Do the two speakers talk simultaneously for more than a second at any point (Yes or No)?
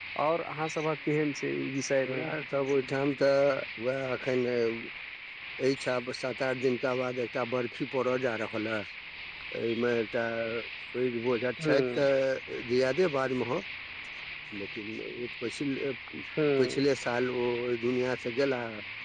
No